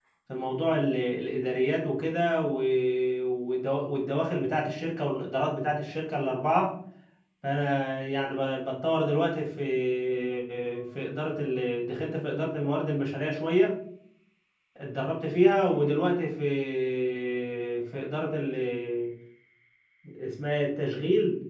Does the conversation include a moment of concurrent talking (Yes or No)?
No